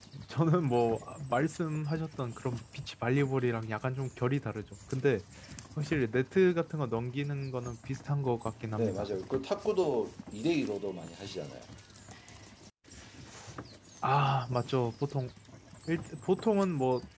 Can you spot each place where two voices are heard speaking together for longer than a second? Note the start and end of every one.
none

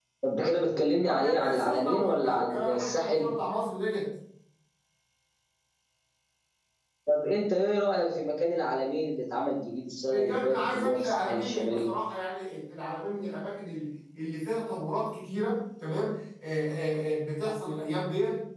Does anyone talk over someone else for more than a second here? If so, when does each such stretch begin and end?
1.0-3.3, 10.1-11.9

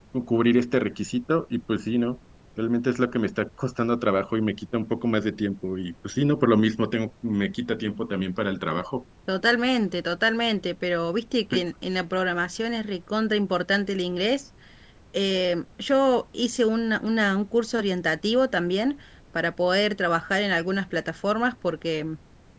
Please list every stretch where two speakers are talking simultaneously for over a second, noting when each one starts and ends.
none

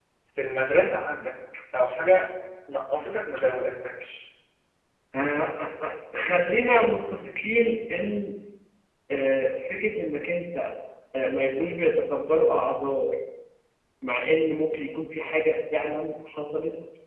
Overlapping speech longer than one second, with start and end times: none

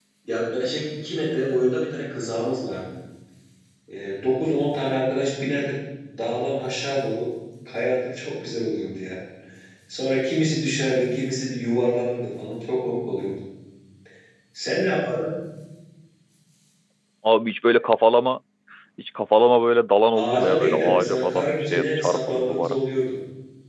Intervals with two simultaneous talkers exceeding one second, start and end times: 20.1-22.8

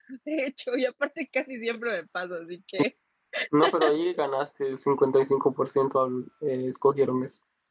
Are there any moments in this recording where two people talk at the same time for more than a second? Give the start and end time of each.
none

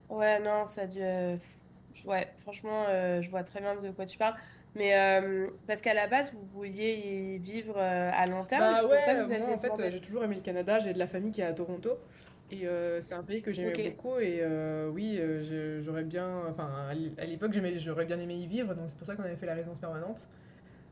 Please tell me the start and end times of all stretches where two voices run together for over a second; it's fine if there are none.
8.6-9.9

